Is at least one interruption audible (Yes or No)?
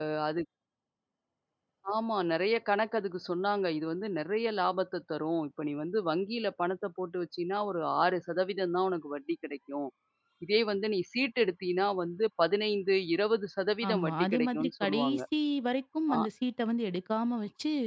Yes